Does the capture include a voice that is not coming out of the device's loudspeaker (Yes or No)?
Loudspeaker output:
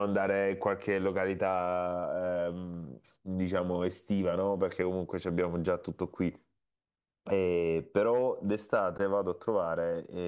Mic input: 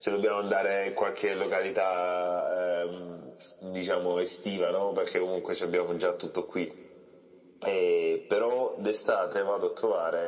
No